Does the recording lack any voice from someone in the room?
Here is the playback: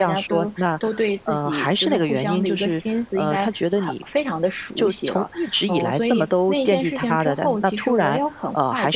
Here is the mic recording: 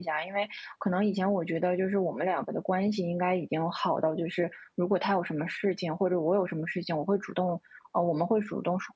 No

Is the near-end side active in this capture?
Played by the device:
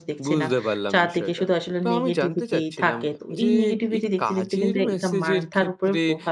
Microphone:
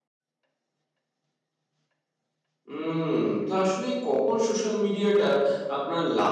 Yes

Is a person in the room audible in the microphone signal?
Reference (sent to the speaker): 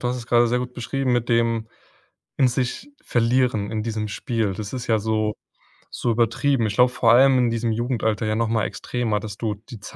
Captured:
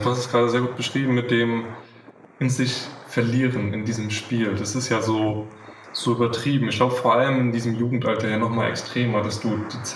No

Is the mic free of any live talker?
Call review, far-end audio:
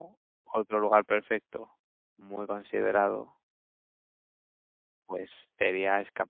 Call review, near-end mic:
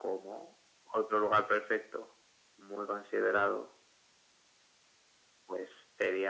Yes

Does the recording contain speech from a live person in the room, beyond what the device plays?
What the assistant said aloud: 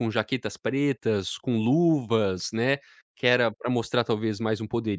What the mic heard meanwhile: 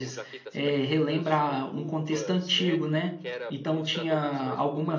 Yes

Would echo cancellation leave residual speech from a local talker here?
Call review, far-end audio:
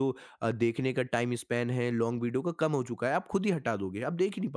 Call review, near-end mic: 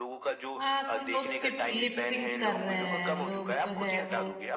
Yes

